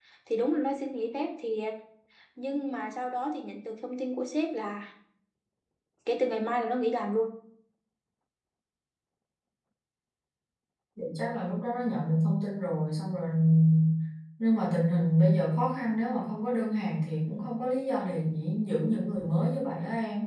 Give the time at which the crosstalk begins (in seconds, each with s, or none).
none